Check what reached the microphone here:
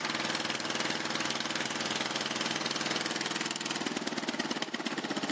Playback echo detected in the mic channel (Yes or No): No